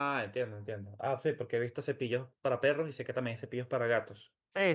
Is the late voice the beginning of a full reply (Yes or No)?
Yes